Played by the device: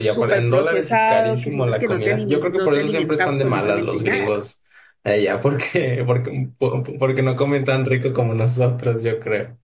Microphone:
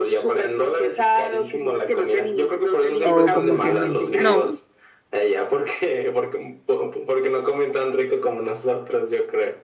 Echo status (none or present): present